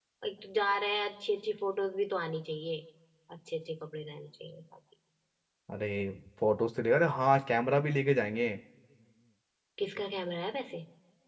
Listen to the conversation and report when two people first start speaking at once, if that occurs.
none

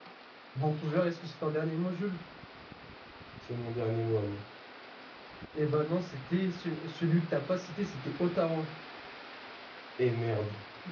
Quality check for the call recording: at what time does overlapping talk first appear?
none

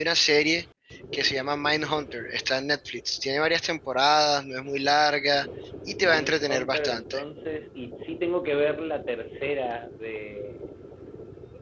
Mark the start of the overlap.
6 s

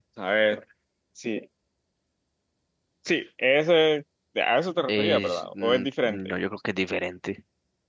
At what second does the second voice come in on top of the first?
5 s

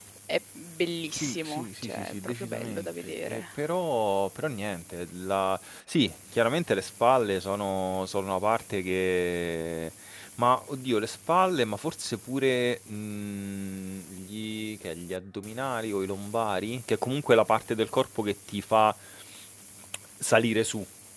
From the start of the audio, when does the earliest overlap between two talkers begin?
1 s

